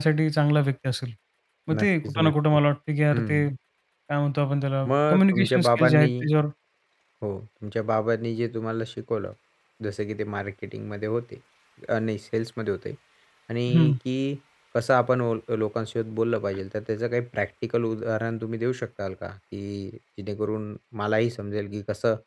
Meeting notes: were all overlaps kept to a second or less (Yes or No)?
No